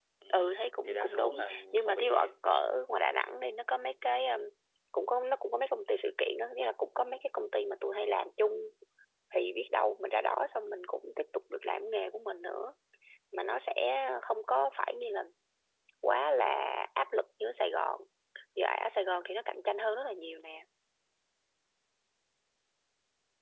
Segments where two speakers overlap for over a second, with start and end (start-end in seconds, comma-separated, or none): 0.9-2.3